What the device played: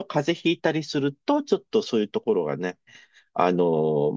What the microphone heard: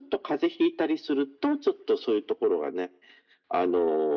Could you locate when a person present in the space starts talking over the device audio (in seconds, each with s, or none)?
none